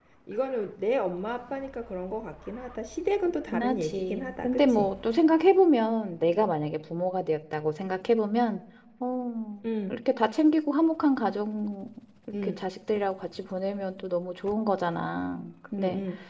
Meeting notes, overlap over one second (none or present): present